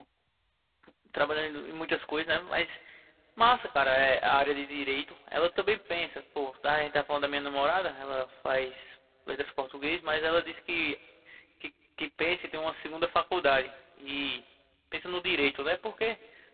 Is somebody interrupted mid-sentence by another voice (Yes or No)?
No